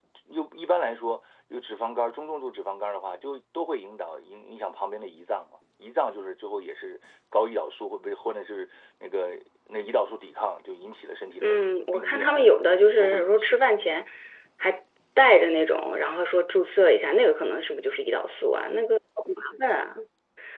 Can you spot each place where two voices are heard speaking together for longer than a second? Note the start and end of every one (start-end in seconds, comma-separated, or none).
11.4-14.0